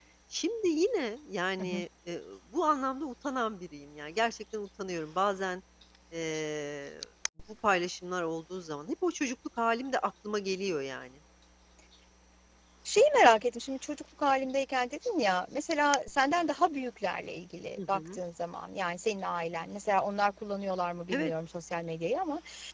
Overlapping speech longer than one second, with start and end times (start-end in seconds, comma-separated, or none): none